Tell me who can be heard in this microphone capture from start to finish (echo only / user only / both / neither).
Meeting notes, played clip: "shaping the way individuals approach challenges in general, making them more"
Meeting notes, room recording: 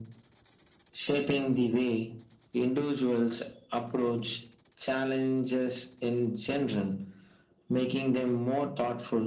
echo only